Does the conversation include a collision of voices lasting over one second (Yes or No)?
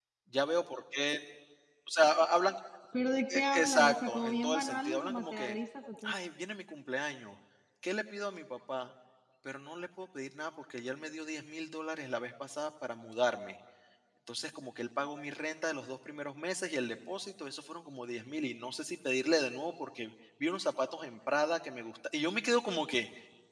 Yes